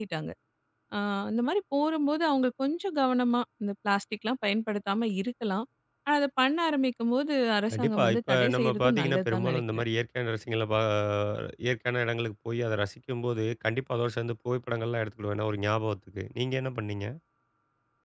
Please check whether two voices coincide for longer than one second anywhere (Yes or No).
Yes